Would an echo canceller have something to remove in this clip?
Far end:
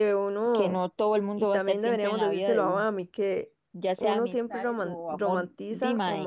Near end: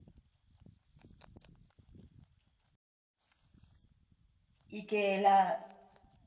No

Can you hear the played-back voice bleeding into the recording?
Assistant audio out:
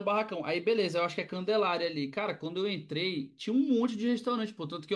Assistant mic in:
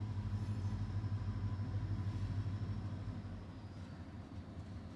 No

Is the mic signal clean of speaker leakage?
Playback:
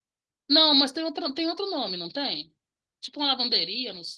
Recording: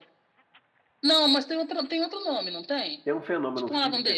No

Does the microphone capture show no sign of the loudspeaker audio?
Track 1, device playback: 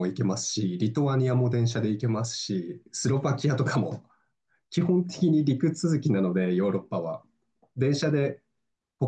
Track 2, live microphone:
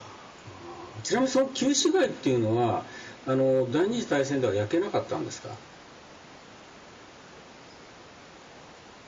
Yes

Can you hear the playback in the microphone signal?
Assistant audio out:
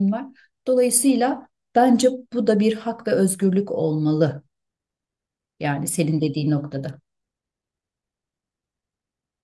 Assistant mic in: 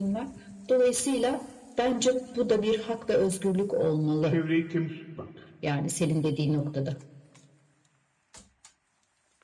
Yes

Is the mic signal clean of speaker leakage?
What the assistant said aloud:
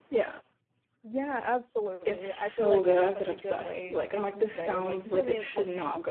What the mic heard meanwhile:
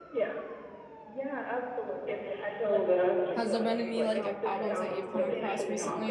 No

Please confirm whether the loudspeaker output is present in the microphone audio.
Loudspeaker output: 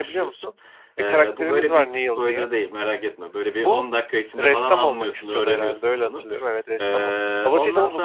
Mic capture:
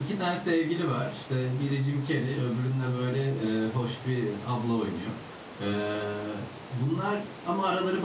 No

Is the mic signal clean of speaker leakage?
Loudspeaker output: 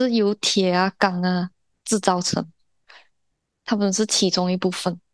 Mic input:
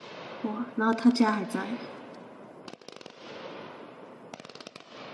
Yes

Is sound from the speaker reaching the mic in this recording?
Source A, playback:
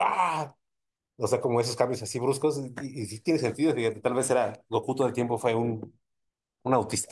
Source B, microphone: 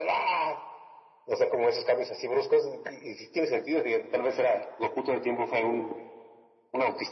Yes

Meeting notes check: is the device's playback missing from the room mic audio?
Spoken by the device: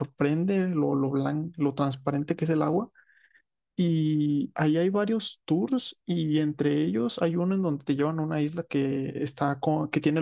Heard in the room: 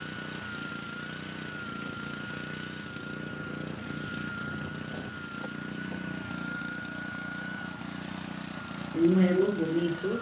Yes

